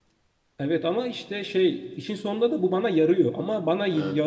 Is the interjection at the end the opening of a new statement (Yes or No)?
No